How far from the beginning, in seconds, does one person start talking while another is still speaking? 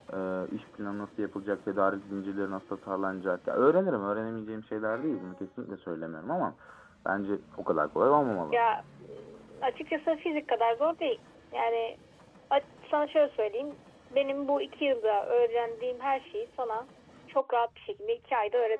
none

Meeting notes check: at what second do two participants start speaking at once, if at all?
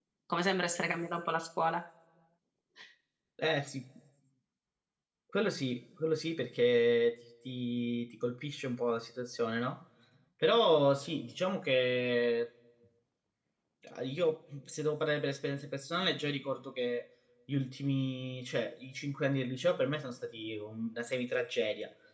none

